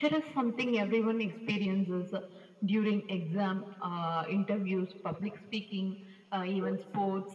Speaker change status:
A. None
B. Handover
A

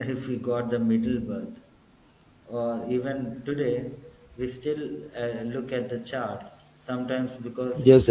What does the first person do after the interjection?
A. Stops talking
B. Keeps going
A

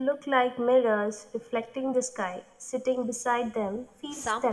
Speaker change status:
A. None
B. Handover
B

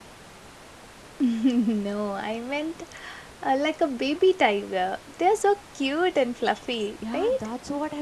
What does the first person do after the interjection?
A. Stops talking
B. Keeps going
A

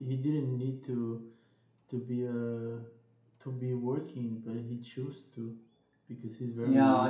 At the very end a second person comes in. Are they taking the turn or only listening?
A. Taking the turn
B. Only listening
A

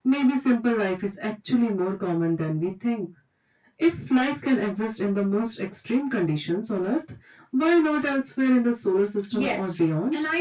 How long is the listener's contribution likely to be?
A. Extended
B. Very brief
A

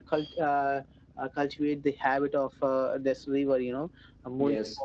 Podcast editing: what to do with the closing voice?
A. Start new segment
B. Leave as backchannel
B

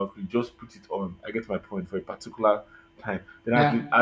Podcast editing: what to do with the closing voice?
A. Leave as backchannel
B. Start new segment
A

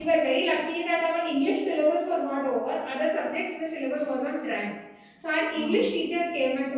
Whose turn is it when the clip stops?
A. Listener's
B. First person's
B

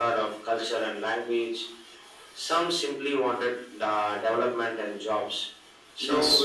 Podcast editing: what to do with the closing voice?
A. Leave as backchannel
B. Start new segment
A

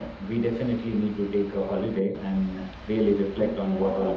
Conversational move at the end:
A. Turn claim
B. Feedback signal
A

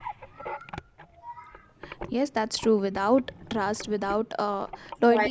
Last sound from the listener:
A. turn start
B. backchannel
B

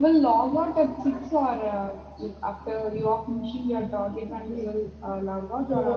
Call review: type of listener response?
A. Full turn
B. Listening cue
A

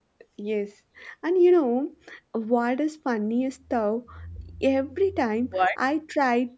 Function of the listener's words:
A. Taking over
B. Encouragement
B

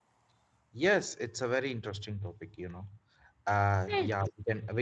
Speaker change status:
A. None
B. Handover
A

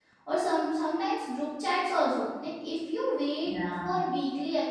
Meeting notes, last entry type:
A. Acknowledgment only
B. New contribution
A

